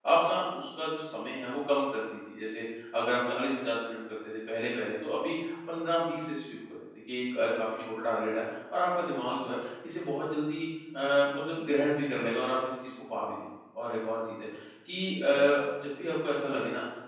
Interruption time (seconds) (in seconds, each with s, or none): none